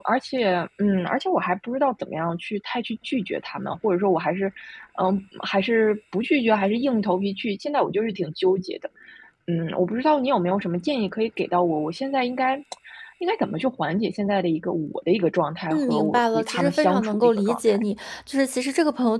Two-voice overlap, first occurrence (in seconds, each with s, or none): 15.7 s